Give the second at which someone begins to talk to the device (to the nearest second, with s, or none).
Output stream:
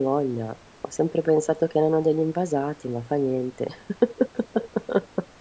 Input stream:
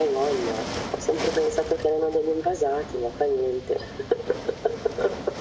none